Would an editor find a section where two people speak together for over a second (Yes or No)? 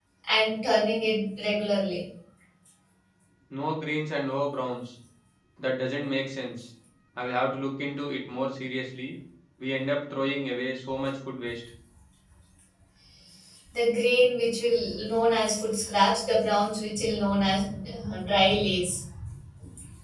No